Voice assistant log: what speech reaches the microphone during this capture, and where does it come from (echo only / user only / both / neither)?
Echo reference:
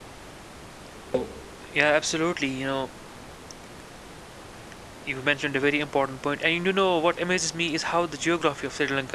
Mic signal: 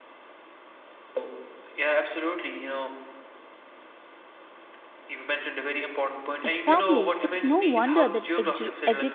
both